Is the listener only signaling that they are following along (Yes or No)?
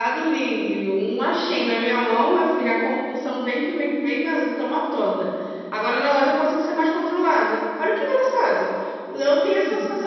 Yes